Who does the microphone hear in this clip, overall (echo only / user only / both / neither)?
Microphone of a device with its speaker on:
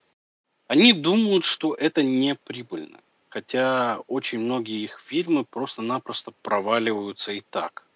user only